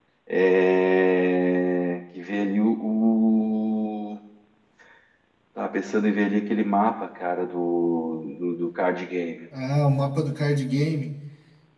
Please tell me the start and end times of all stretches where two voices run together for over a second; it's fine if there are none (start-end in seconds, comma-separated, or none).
none